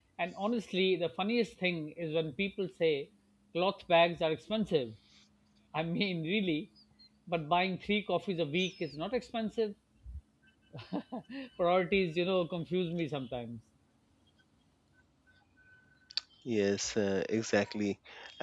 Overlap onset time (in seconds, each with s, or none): none